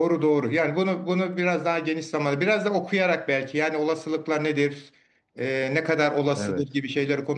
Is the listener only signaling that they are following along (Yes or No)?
Yes